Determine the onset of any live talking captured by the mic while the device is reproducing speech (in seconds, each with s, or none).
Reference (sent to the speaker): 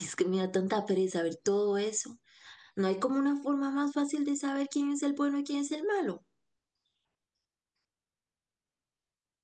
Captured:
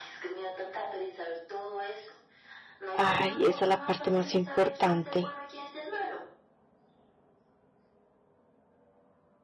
2.9 s